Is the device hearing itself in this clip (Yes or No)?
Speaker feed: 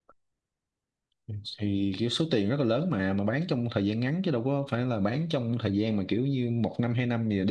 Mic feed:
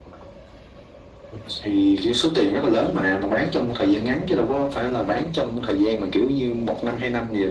Yes